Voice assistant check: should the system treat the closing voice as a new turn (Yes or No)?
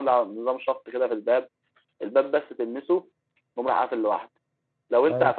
No